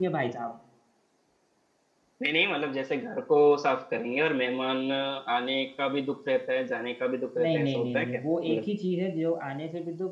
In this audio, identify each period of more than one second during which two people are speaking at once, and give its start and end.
7.4-8.6

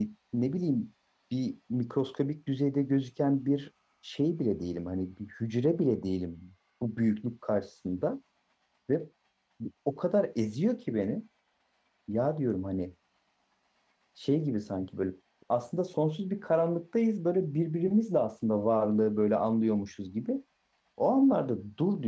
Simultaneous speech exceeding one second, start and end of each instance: none

